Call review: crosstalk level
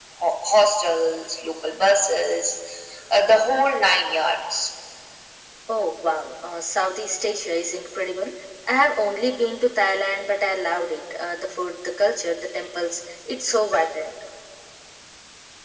none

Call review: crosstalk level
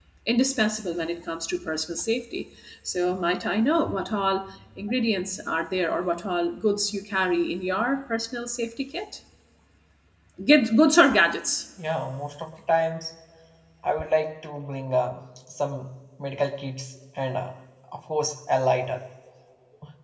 none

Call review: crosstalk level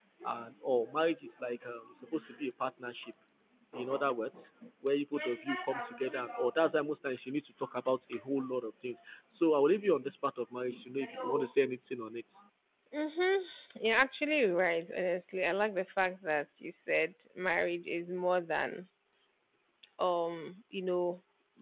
none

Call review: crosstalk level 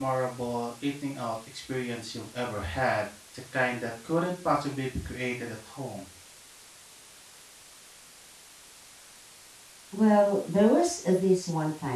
none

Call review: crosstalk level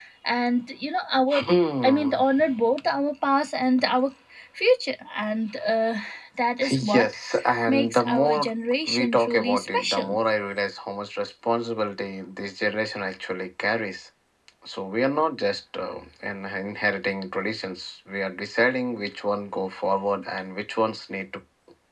present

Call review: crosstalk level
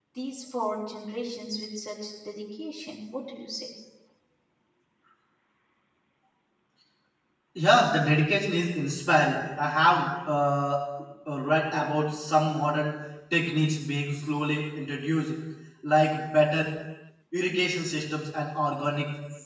none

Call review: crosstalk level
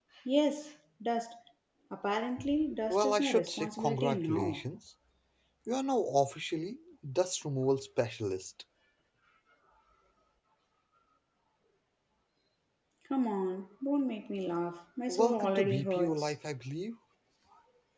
present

